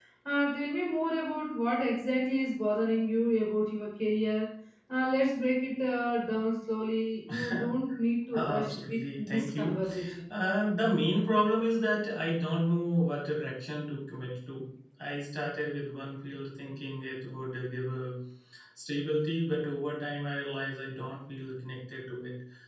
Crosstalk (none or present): present